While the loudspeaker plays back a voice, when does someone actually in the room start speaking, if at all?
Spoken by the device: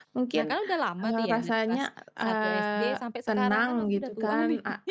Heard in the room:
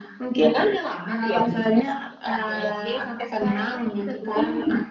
none

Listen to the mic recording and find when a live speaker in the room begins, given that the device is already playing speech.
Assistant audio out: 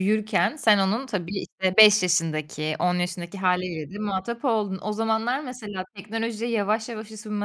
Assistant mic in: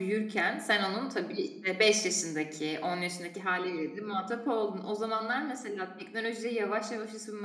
none

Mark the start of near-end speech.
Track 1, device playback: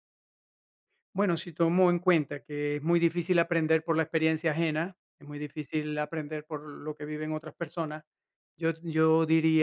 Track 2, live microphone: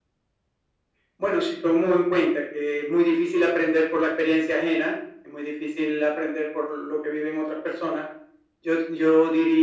none

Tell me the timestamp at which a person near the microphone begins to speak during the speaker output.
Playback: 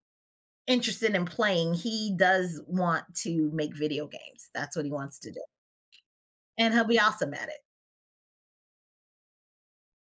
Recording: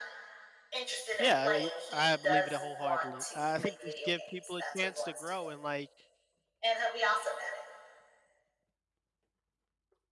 1.2 s

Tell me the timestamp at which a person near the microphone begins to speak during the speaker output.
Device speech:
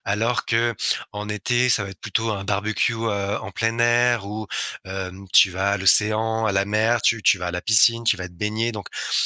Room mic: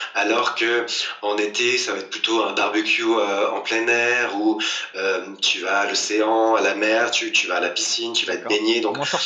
8.2 s

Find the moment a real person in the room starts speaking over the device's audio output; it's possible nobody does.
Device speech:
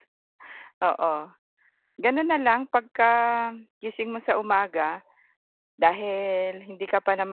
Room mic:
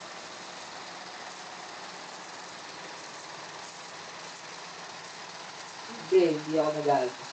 5.9 s

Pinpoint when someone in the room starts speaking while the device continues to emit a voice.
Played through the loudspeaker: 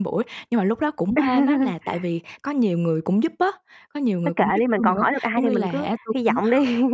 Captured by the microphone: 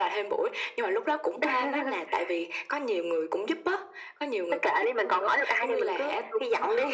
none

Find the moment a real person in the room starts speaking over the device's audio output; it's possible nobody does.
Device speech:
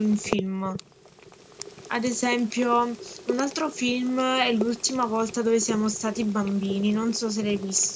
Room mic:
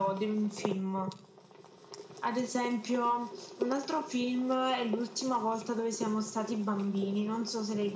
none

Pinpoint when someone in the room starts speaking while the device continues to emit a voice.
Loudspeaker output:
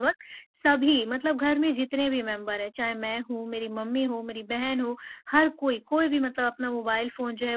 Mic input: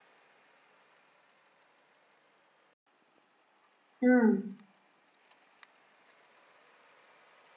4.0 s

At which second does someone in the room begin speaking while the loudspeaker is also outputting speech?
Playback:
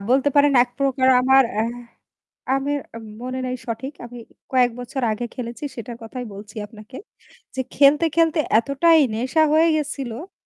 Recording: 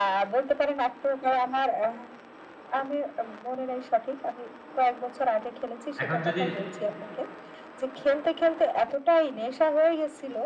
6.0 s

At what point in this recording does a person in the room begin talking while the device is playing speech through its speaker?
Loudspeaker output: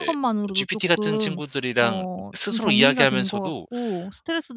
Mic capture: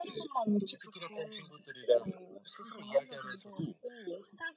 none

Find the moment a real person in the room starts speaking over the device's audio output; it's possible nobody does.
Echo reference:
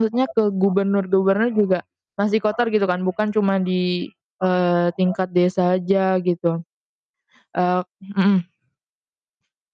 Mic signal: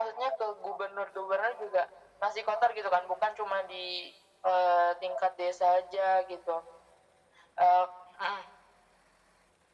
none

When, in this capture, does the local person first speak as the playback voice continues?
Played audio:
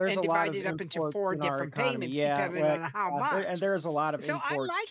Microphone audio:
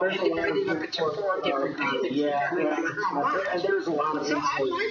none

